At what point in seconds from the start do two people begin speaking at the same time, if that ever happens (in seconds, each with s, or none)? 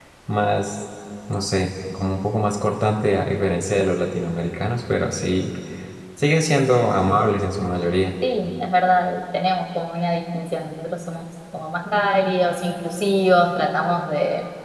none